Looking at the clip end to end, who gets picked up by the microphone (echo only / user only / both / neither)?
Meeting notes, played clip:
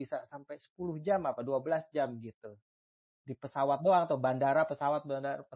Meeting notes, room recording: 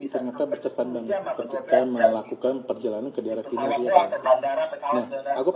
both